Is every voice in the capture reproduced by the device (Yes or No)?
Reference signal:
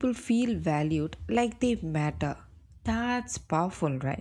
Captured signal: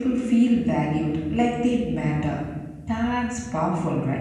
Yes